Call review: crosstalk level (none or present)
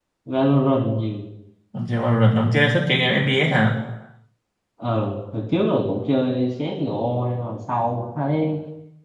none